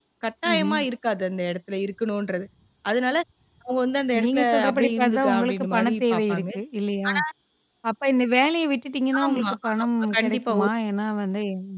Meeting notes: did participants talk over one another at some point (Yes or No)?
Yes